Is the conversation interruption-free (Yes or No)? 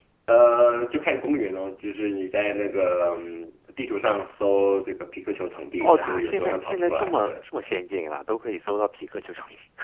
No